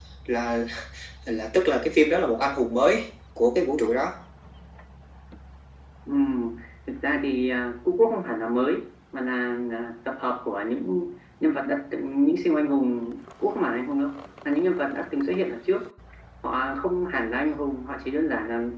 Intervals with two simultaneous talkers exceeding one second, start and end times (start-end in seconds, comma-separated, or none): none